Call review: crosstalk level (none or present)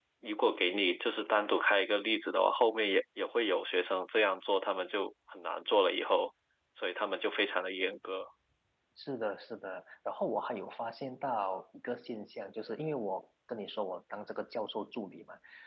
none